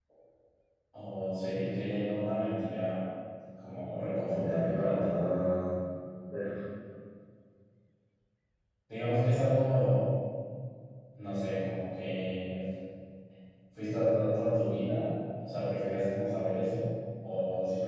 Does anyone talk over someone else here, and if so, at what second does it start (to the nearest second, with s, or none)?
4 s